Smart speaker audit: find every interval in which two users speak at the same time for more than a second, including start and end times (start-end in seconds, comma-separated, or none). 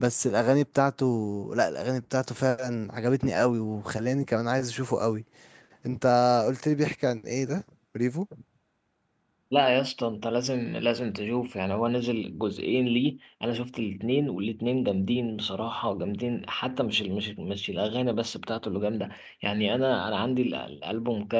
none